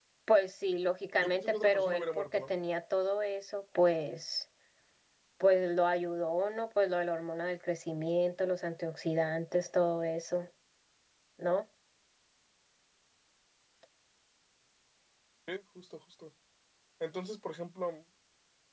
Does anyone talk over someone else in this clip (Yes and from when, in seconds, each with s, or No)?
Yes, from 1.2 s